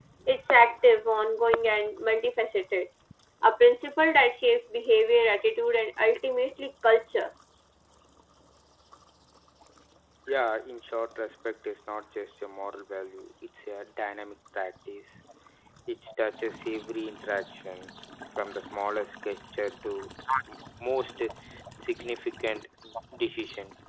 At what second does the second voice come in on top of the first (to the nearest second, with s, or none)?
none